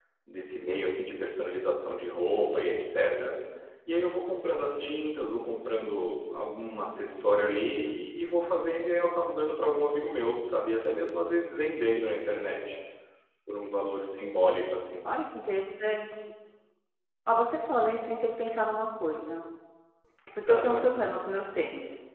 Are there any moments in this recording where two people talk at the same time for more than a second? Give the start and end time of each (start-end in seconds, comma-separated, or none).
none